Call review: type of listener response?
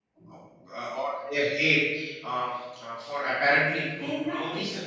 listening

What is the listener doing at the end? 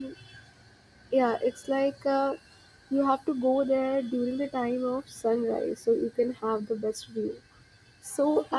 taking over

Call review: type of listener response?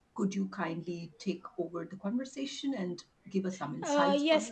taking over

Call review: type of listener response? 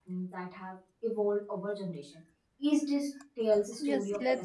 taking over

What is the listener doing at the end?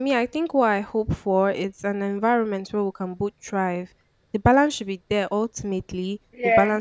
listening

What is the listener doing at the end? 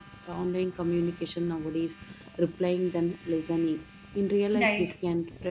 listening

